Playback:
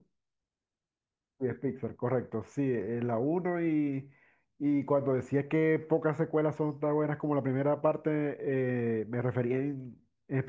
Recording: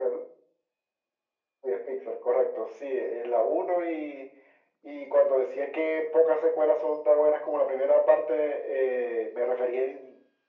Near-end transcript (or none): none